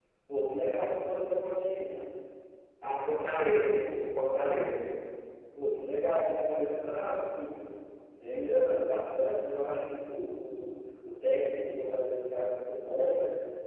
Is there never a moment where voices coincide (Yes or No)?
Yes